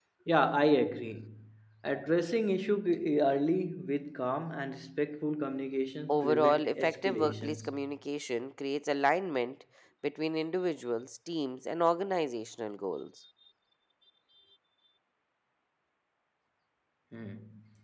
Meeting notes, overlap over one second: present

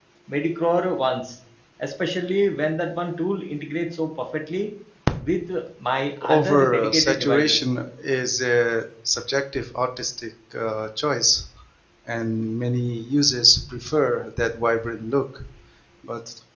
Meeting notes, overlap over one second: present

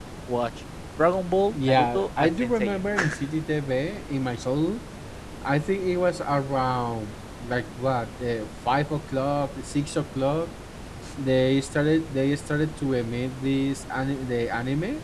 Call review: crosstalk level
present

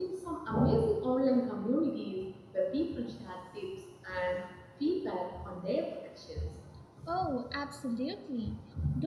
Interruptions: none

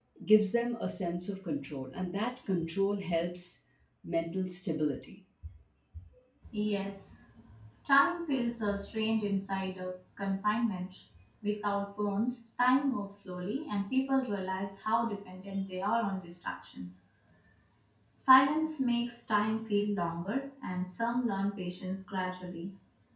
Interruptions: none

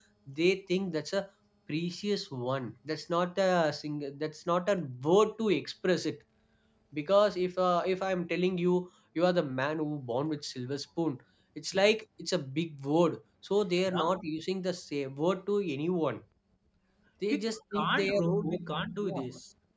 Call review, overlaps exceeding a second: present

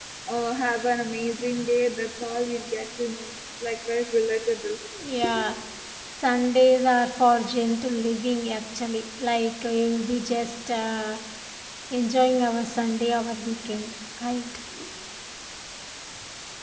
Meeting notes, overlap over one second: none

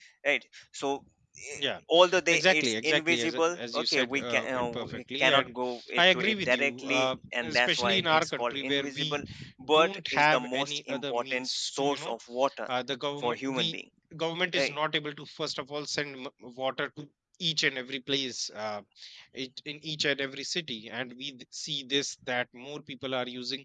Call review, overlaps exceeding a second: present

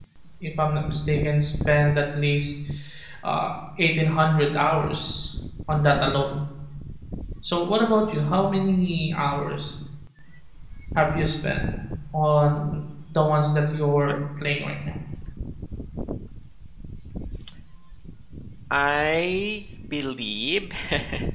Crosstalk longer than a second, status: none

